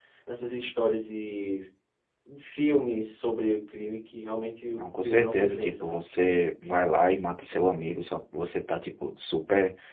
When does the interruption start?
4.8 s

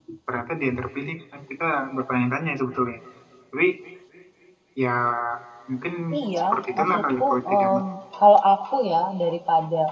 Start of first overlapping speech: 6.4 s

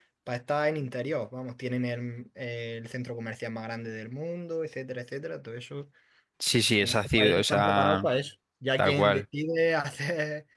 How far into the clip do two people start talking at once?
6.8 s

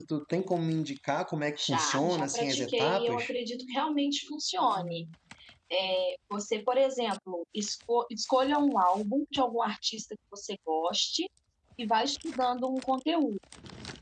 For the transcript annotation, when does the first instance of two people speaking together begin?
1.6 s

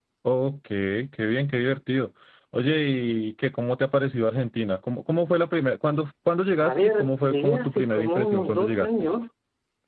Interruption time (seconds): 6.6 s

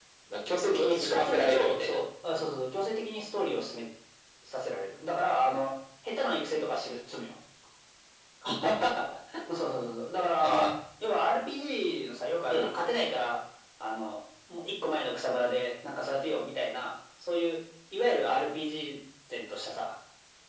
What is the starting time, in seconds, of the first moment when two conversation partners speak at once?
0.7 s

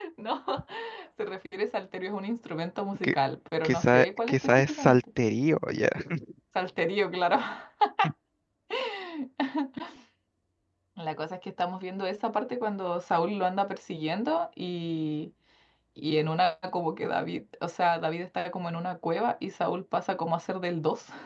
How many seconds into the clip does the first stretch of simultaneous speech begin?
3.6 s

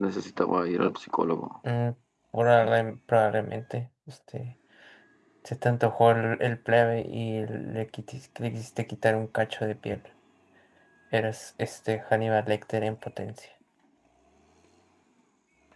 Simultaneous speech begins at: none

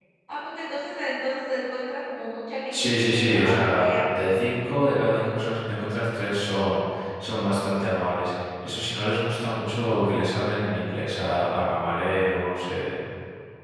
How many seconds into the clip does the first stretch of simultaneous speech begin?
2.7 s

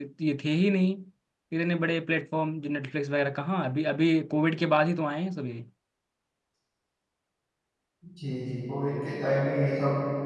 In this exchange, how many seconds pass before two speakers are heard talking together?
none

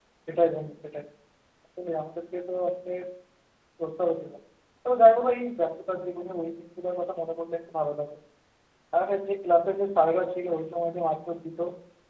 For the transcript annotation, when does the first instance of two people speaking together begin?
none

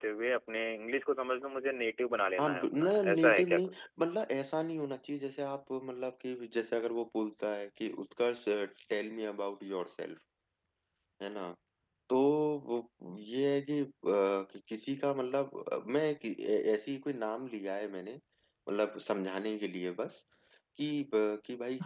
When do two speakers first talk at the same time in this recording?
2.4 s

